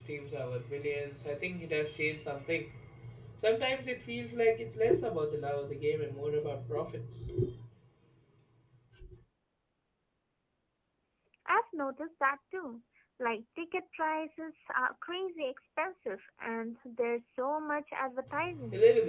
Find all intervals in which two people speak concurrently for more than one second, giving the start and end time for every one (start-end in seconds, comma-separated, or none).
none